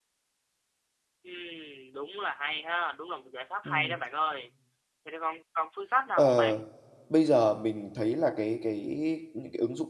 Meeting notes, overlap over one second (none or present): none